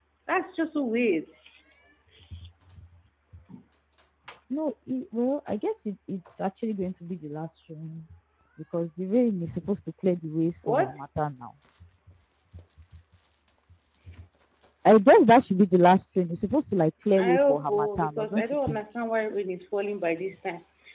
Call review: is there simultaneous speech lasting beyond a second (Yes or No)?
Yes